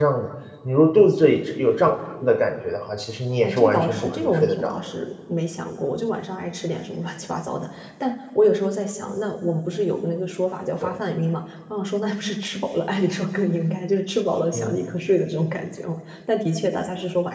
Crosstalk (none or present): present